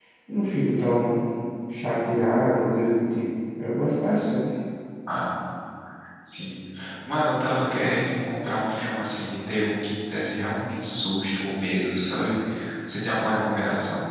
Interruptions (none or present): none